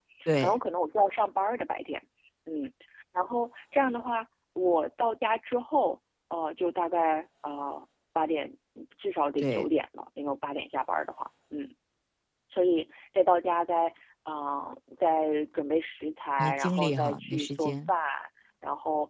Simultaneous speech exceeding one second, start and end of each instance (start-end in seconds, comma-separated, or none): 16.4-17.9